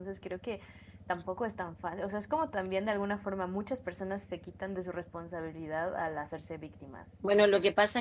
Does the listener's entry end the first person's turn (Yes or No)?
Yes